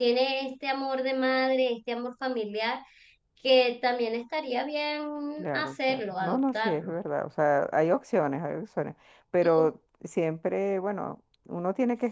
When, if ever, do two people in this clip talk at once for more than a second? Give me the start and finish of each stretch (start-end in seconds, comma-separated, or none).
5.4-6.9